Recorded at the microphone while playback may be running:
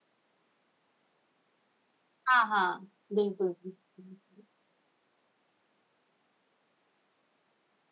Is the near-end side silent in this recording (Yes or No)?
No